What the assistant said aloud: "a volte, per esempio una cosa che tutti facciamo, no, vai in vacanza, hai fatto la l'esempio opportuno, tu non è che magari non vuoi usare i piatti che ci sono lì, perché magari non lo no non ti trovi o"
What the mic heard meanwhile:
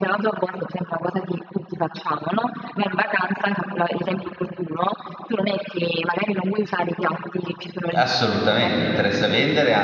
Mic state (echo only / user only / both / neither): both